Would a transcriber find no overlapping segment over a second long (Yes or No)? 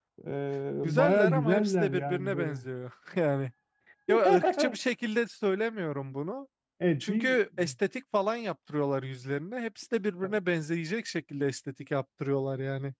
No